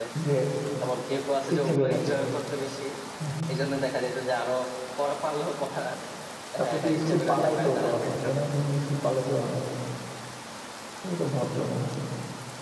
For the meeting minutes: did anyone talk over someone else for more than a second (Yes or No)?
Yes